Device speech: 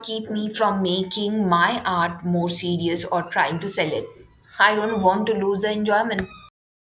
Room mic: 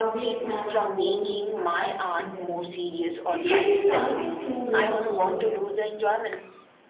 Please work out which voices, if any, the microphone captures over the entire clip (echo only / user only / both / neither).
both